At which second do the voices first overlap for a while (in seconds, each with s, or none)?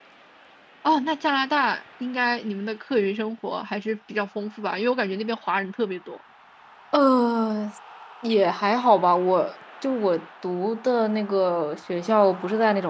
none